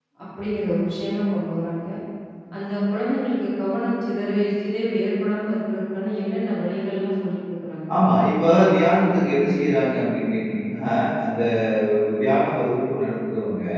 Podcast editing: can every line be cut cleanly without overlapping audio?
Yes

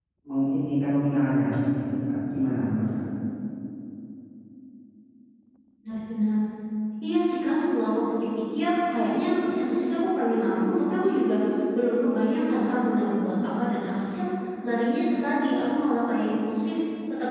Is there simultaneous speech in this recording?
No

